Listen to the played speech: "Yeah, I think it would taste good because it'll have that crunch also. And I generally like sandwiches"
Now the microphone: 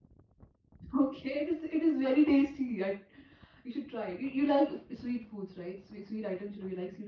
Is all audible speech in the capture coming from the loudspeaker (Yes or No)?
No